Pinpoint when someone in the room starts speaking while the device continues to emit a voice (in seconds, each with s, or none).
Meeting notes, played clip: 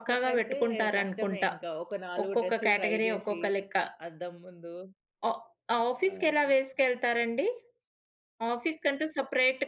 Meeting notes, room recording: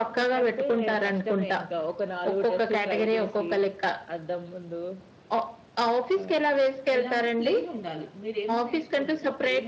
7.0 s